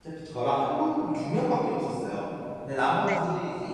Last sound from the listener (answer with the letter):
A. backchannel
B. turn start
A